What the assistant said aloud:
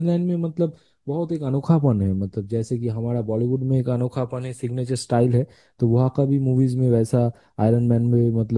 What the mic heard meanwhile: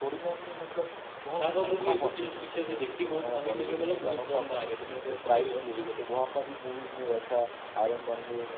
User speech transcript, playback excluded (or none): छावा मूवी अभी मेरे पीछे से देखी वो तो भाई मेरे मतलब गूज बम्स आ गए थे मेरे को भाई उस मूवी को देख के